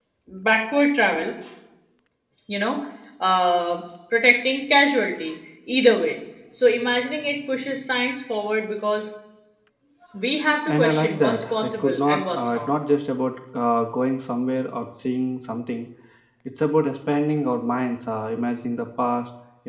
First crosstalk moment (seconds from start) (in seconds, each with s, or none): 10.7 s